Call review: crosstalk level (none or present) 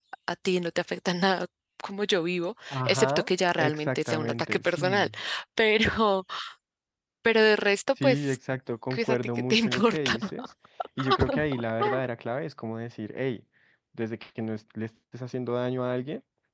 present